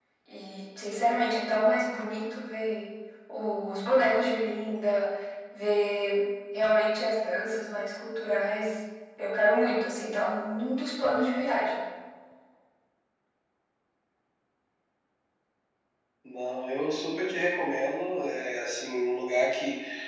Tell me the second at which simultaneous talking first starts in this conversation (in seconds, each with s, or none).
none